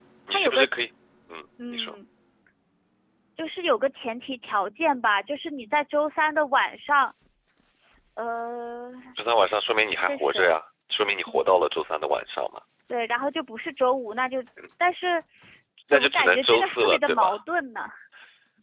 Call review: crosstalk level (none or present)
present